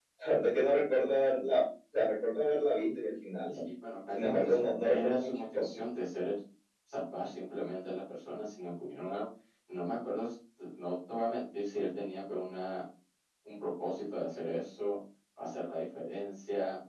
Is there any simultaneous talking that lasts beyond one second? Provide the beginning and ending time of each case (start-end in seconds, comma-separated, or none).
4.1-5.7